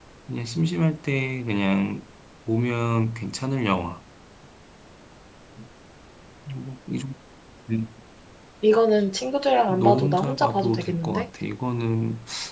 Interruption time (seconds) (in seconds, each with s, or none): 9.7 s